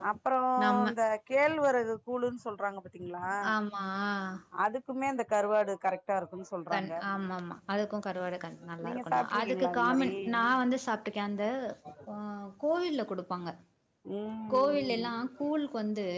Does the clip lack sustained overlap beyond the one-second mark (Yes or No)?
No